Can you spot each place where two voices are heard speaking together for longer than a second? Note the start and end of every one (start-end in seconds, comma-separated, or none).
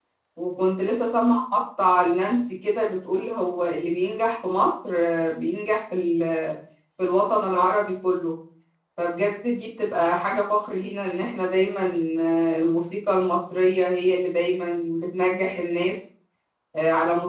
none